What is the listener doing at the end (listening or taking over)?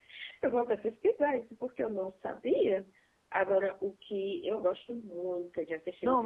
taking over